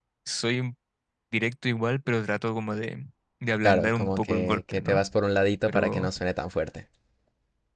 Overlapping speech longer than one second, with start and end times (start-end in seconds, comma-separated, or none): 3.6-5.0